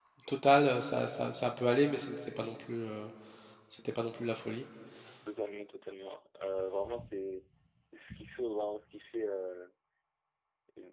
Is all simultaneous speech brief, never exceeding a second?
Yes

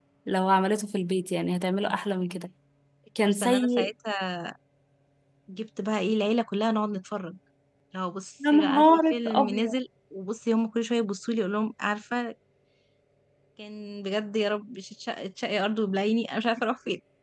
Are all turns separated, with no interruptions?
No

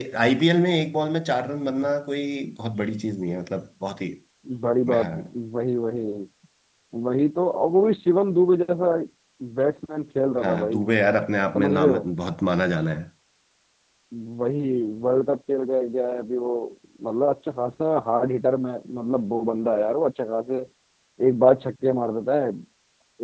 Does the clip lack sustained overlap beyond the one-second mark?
Yes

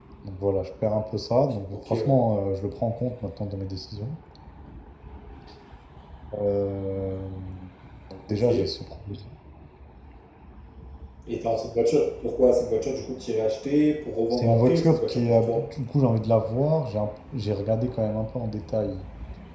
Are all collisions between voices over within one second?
No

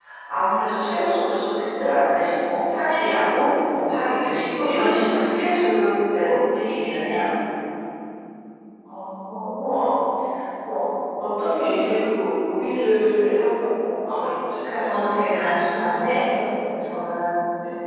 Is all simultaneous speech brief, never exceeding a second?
Yes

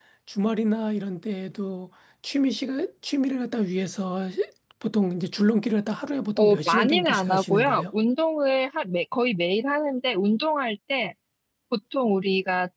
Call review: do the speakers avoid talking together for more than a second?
No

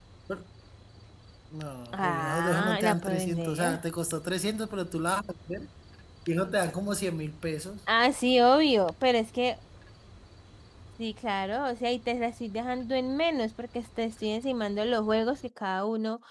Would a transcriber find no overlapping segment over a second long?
No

